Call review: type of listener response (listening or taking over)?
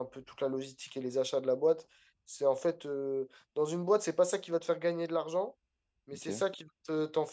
listening